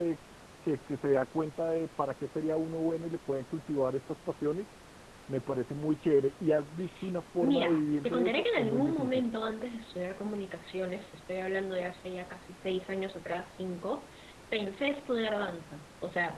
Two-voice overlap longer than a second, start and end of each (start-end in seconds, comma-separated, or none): 7.4-9.2